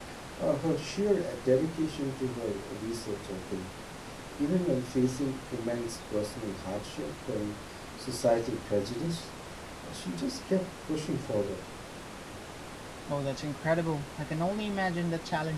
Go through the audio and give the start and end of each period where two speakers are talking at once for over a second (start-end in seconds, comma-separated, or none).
none